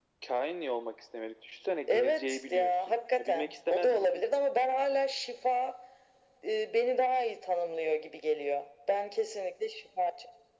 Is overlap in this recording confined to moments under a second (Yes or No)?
No